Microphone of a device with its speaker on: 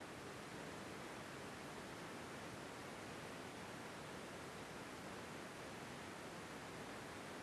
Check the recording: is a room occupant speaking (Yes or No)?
No